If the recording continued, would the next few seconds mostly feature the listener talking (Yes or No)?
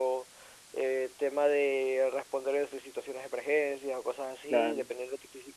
No